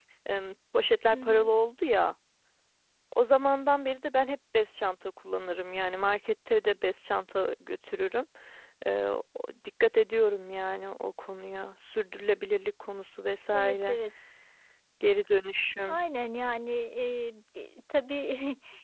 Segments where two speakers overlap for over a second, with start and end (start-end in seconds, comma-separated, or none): none